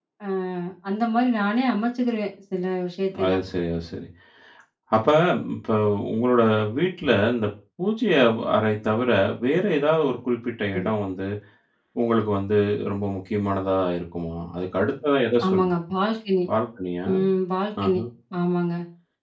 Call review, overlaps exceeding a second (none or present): none